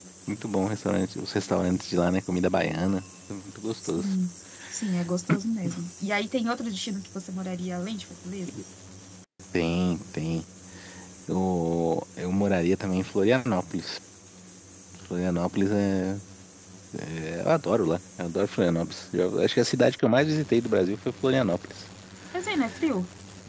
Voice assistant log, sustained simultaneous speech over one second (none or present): none